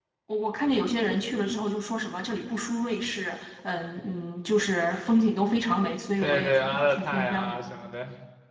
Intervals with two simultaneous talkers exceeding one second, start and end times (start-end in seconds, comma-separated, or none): 6.2-7.6